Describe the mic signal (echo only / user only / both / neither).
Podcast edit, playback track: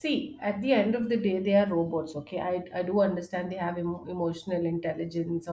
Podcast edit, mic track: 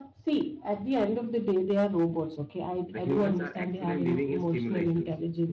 both